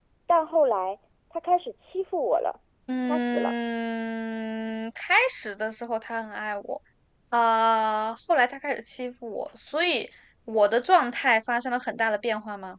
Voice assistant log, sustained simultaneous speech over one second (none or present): none